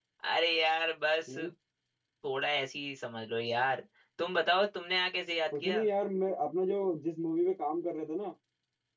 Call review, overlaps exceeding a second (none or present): none